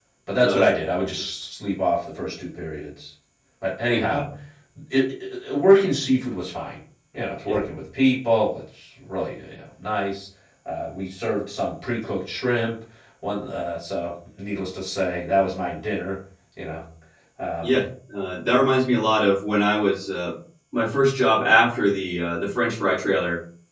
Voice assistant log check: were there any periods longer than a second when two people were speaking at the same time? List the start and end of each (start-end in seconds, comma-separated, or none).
none